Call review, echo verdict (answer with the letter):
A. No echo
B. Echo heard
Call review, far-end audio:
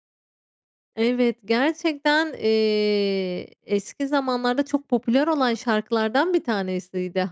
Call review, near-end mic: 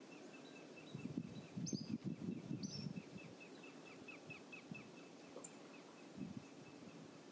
A